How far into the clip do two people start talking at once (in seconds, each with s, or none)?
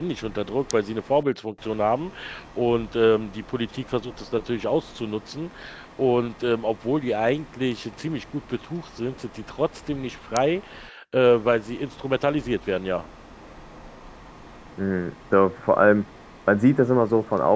none